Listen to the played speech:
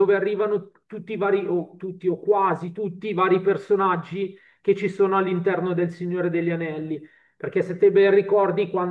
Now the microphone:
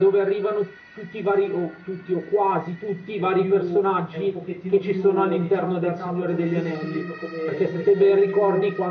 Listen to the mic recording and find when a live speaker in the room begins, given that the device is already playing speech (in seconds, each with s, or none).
3.1 s